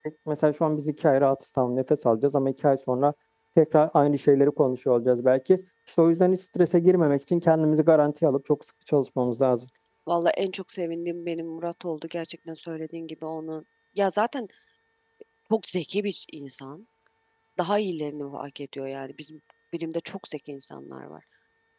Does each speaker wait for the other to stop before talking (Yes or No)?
Yes